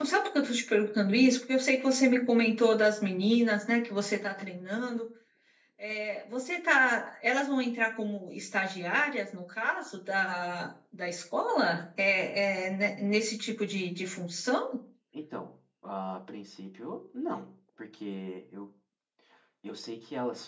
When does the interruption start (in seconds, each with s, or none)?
none